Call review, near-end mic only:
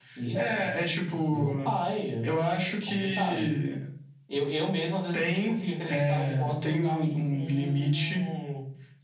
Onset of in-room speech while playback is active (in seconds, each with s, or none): none